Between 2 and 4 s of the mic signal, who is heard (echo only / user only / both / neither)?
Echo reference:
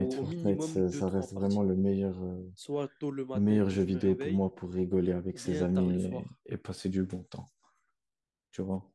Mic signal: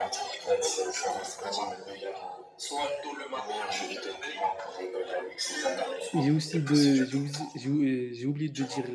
echo only